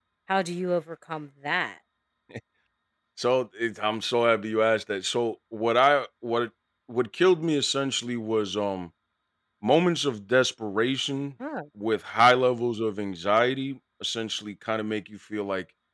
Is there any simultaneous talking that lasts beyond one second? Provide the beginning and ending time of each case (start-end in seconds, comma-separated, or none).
none